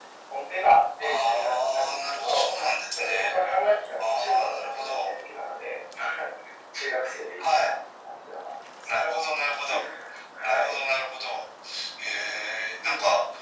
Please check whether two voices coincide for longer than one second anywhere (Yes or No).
Yes